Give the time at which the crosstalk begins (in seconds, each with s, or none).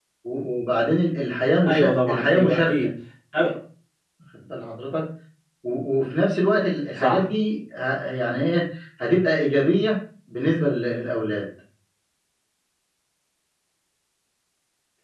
1.7 s